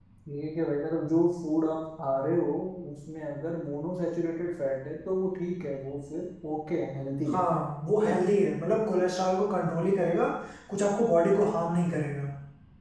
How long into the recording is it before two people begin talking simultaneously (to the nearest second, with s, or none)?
none